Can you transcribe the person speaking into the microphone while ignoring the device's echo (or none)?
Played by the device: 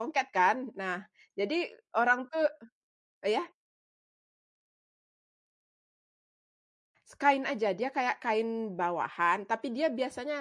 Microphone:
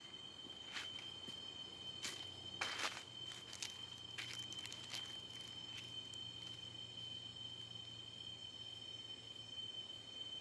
none